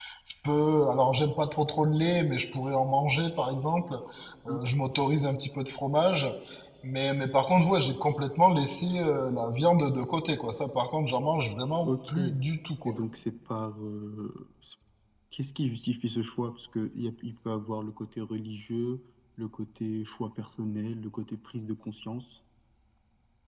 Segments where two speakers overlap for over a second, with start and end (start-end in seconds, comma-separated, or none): none